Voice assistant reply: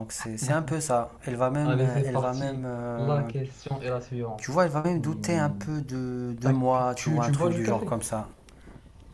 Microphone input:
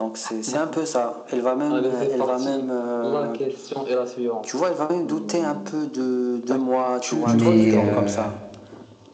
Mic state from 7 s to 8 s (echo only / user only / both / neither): both